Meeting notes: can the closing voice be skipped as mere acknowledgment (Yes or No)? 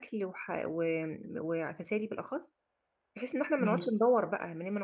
Yes